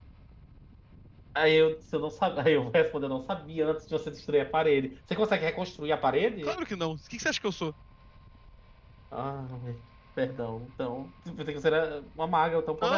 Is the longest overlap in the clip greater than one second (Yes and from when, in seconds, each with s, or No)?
No